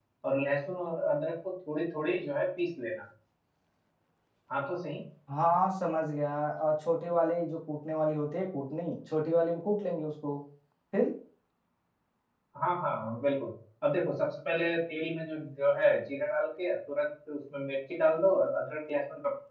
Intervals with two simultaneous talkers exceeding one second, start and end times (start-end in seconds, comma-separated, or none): none